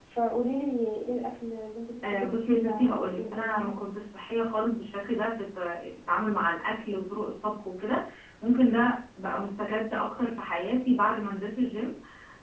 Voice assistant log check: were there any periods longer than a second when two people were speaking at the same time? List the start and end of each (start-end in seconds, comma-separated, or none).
2.0-3.7